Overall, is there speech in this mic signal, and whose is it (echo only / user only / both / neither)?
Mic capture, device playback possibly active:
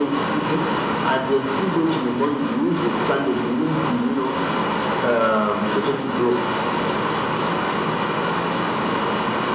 echo only